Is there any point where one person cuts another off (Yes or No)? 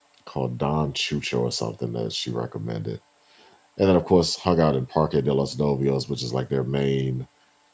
No